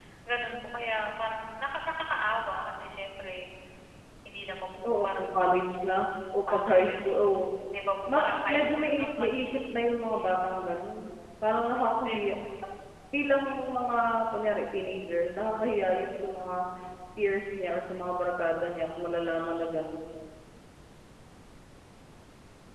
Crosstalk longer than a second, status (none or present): present